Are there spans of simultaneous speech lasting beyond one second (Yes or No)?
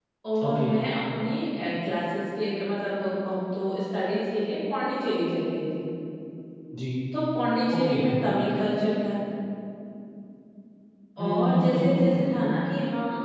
Yes